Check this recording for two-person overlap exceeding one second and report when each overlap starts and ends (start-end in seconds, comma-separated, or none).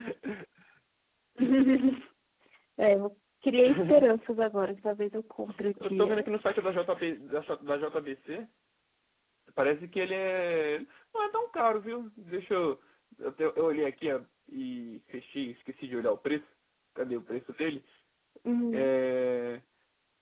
none